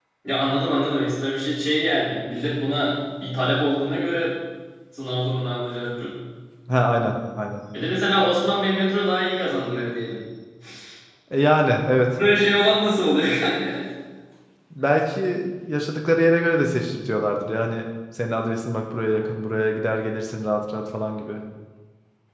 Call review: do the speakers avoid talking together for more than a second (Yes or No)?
Yes